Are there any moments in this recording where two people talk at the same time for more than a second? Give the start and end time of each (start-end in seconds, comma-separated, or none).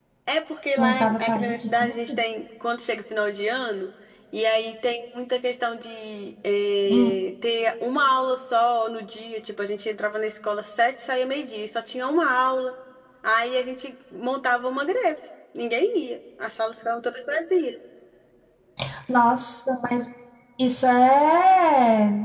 0.8-2.2